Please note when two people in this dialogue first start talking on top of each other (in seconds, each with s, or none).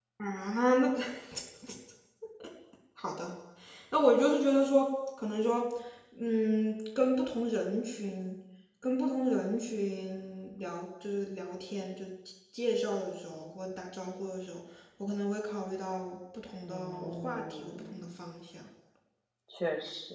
16.6 s